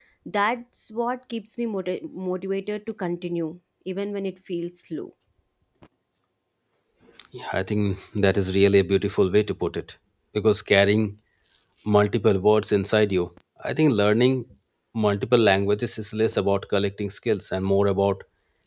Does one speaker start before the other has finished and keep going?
No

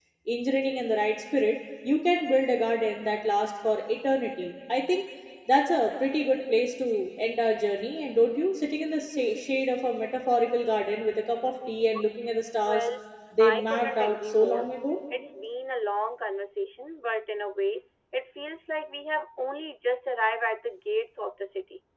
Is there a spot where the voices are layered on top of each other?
Yes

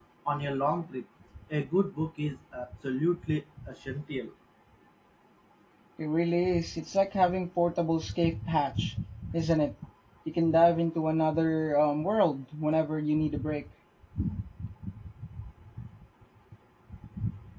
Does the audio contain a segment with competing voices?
No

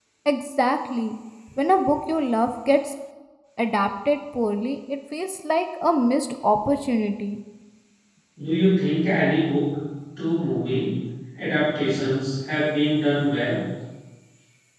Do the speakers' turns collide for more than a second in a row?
No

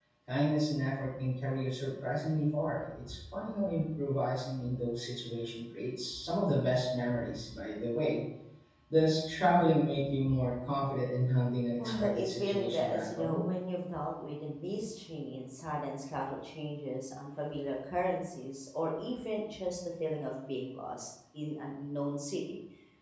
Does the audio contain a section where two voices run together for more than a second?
Yes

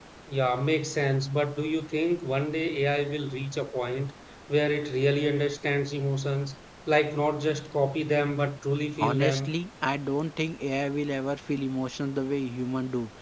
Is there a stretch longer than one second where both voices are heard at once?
No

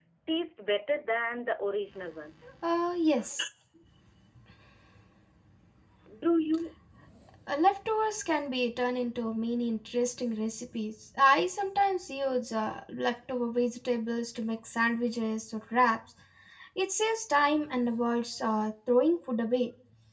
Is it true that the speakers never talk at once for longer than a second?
Yes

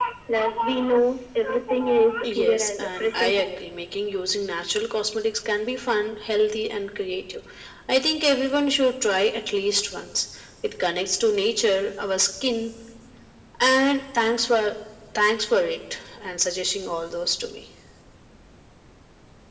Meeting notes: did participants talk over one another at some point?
Yes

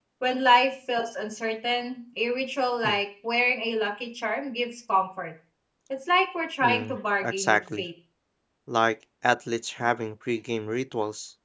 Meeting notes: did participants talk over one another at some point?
Yes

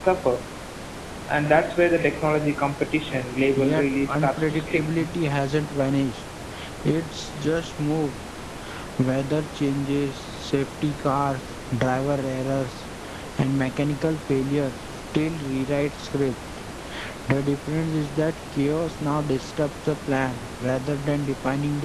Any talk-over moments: Yes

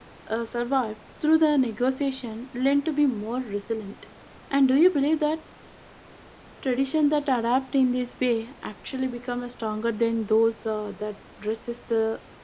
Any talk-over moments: No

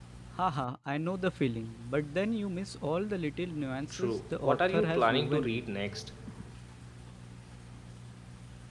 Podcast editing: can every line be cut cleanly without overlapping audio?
No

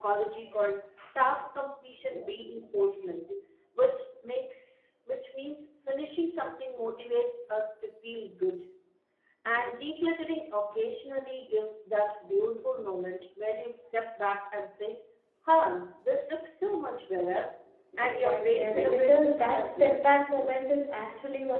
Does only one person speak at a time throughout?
No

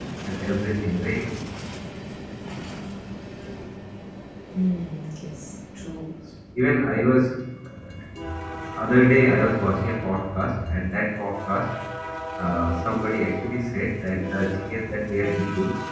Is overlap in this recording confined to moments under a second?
Yes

